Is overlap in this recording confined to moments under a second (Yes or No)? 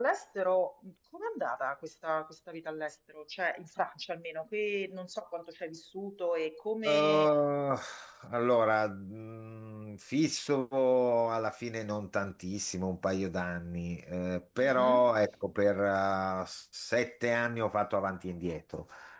Yes